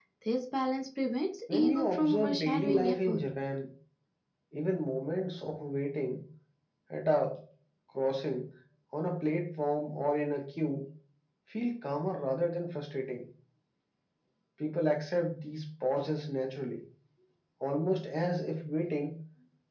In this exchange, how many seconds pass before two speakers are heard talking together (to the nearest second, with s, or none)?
1 s